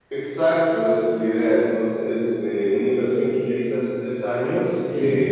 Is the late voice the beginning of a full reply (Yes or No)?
No